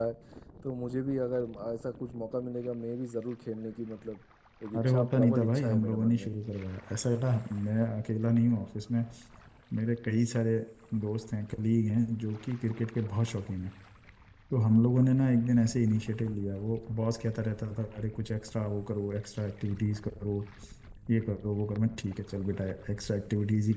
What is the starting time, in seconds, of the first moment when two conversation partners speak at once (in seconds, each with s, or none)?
4.8 s